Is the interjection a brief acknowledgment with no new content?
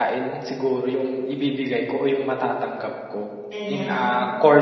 Yes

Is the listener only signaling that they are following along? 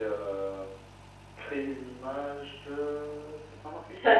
No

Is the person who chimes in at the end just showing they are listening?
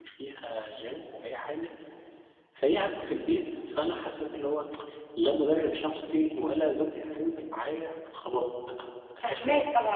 No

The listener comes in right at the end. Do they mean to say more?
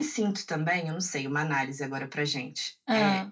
No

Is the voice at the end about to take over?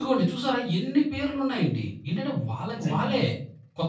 No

